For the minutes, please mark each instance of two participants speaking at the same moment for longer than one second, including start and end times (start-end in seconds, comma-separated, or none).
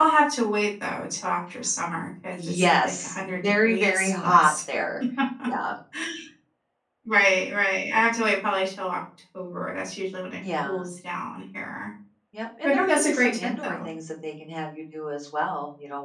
2.3-4.5, 12.7-13.9